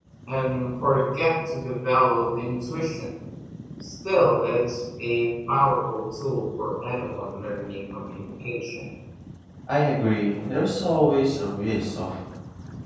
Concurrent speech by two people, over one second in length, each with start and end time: none

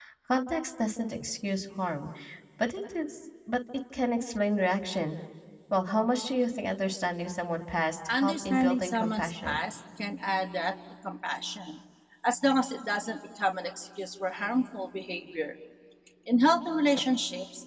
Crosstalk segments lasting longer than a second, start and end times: 8.1-9.6

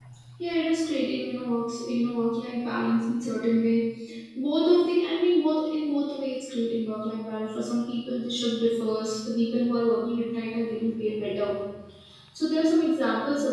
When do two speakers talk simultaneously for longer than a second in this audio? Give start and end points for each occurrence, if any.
none

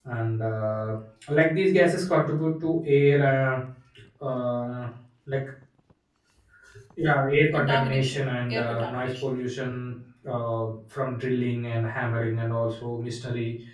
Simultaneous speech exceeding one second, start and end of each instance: 7.5-9.3

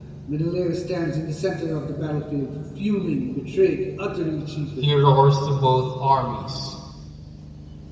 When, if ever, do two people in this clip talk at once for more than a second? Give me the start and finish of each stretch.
none

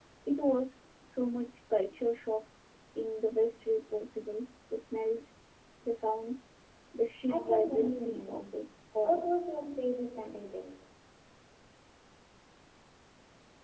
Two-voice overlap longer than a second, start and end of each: 7.3-8.6

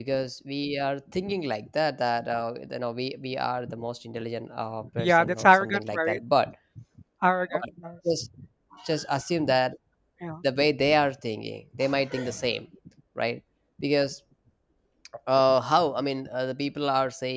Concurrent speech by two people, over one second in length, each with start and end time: 5.0-6.2

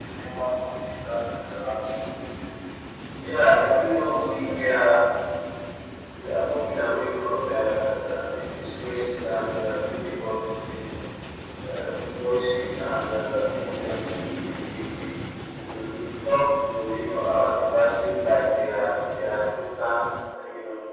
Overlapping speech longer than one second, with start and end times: 3.5-4.7

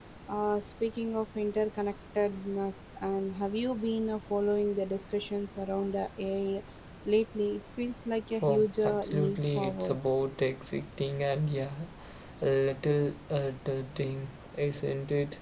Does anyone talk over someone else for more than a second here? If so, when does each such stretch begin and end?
8.4-10.0

